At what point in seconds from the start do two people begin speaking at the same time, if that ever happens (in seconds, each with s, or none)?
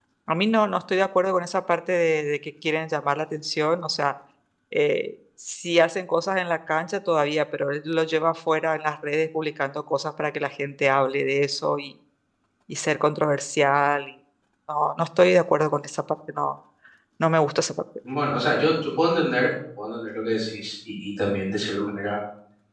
none